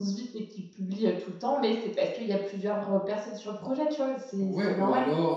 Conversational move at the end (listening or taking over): taking over